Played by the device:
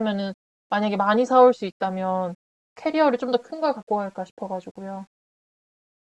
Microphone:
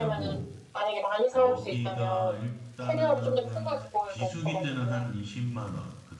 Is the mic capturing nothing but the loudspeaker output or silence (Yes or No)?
No